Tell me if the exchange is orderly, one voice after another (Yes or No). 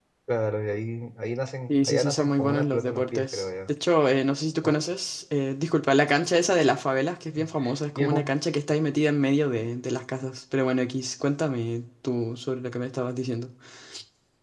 No